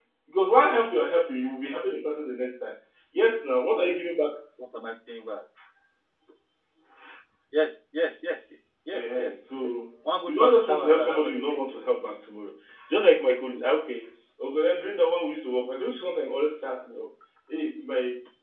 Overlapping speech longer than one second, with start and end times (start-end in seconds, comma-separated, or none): 10.3-11.6